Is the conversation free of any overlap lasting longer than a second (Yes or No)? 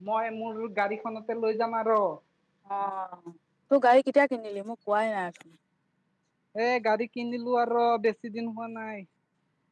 Yes